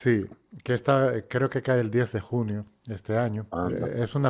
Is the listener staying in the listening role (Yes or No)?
Yes